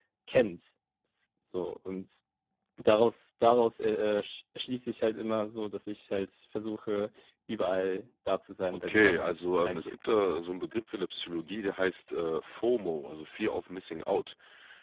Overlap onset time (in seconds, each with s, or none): 8.7 s